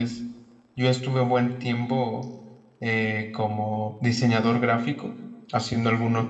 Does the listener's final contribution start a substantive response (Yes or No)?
No